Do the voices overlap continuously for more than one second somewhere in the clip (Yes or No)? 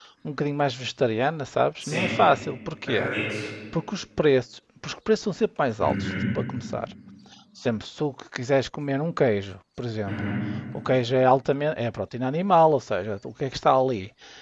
No